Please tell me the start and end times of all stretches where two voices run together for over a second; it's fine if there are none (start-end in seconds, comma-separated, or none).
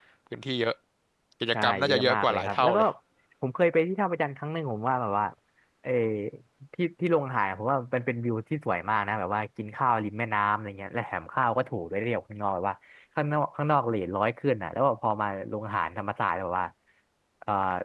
1.5-2.8